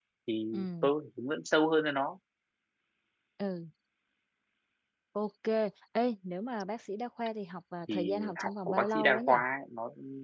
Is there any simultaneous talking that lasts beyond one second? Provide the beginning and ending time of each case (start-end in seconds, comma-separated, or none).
7.9-9.4